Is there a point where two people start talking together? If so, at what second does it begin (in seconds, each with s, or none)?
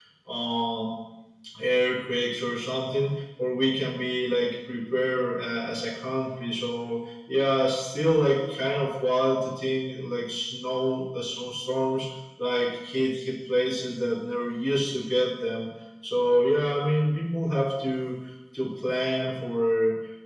none